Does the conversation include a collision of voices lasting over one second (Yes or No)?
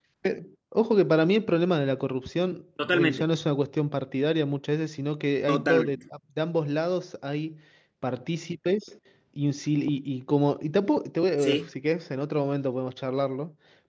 No